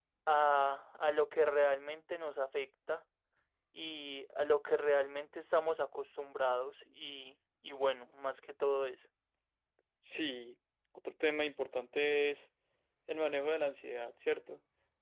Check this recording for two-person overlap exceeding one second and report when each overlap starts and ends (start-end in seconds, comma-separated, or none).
none